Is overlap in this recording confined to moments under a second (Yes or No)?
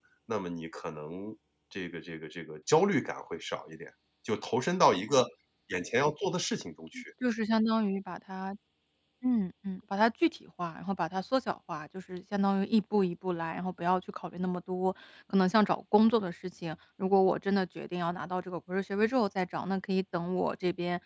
Yes